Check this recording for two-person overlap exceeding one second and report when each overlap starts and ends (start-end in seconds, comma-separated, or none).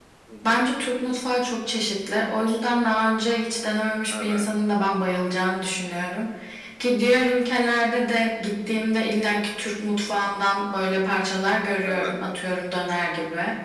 none